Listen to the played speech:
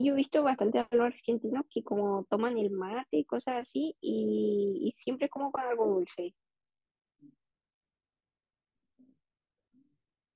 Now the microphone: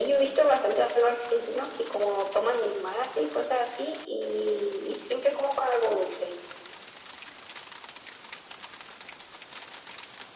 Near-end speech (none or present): none